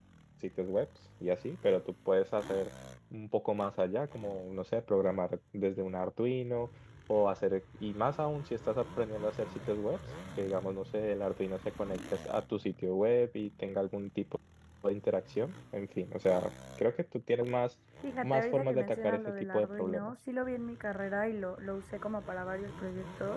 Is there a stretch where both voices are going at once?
Yes, from 18.2 s

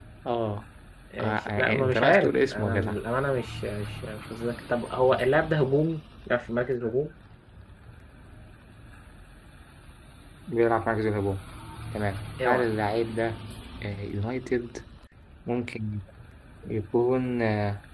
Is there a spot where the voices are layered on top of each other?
Yes, from 1.2 s

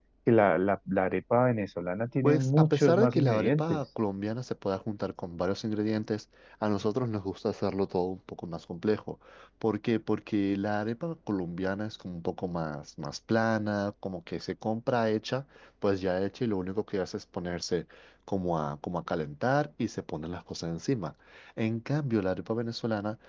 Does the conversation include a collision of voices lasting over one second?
Yes, from 2.2 s

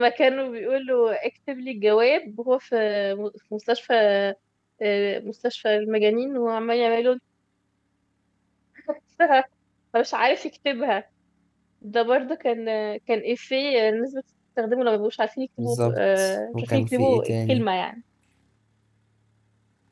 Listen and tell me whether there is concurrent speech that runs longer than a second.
Yes, from 15.6 s

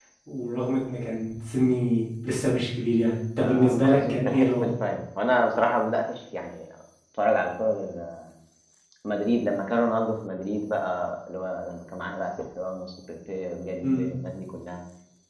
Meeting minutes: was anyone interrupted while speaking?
Yes, from 3.4 s

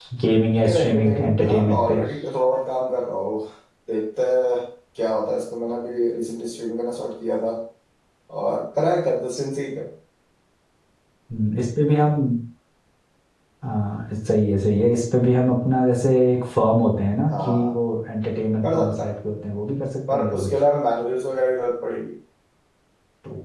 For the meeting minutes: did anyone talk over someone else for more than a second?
Yes, from 0.7 s

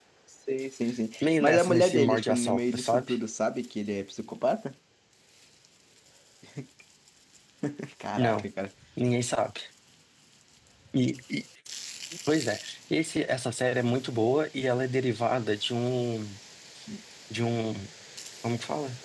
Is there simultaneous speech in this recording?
Yes, from 1.2 s

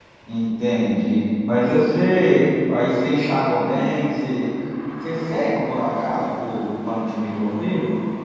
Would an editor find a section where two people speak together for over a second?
No

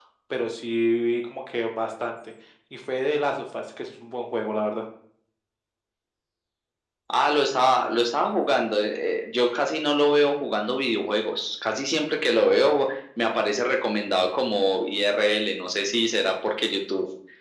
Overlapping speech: No

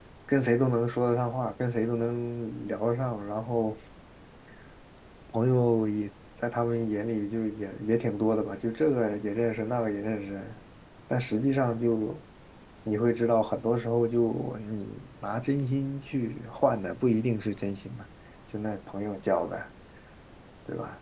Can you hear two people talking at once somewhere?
No

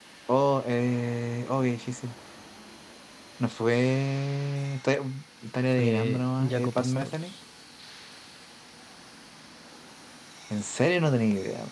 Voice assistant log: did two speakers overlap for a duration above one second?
Yes, from 5.7 s

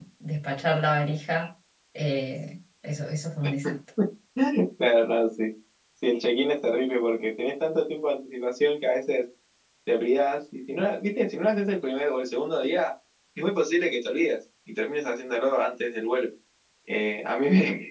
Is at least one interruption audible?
No

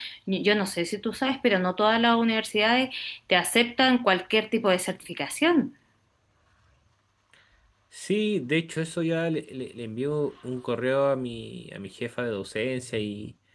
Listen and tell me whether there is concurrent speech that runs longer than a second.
No

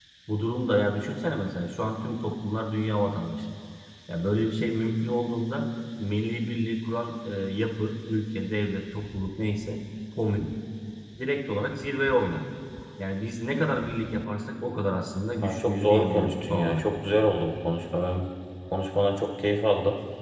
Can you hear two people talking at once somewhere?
Yes, from 15.4 s

